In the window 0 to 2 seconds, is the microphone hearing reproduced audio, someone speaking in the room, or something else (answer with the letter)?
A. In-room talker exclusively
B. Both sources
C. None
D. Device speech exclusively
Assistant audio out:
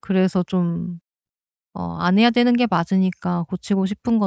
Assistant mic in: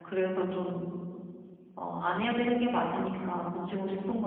D